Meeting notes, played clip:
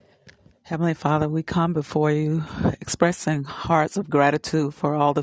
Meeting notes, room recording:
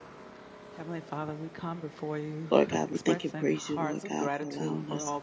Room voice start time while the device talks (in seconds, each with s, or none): 2.5 s